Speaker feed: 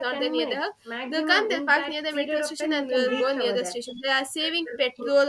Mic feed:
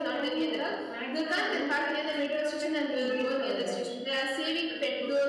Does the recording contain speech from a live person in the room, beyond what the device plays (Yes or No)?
No